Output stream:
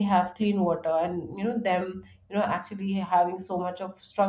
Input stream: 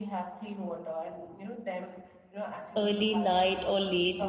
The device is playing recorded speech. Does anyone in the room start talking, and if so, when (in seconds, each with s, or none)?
2.8 s